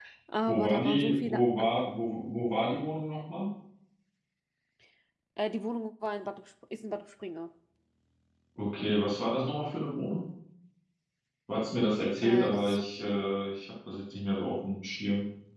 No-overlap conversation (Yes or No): No